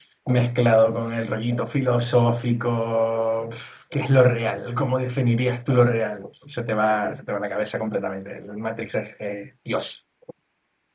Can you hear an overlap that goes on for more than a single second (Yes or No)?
No